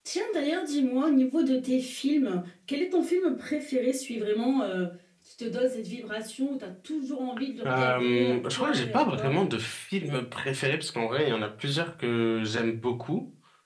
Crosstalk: present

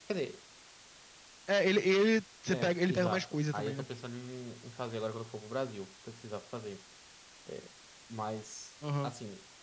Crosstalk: present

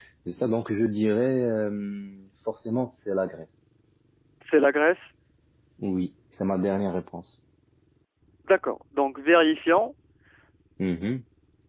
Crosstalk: none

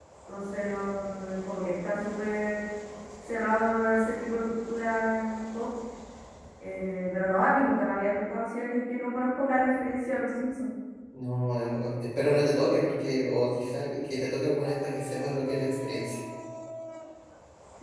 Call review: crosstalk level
none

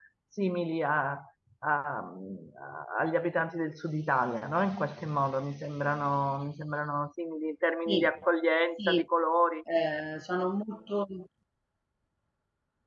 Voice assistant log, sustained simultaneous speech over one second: none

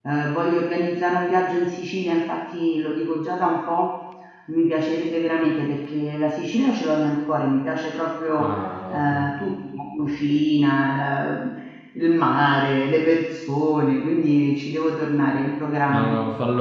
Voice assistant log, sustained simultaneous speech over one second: none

